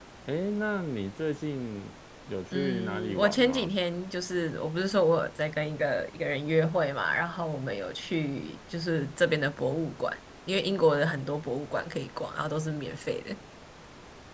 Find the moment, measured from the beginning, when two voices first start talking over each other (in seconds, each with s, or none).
2.5 s